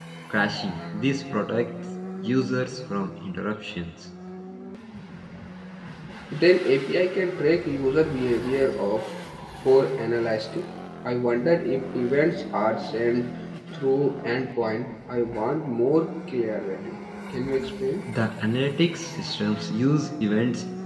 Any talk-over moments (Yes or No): No